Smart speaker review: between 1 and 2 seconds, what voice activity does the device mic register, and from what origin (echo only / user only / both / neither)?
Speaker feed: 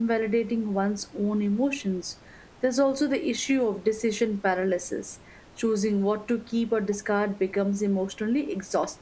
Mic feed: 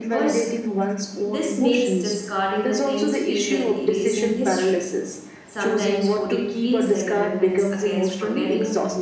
both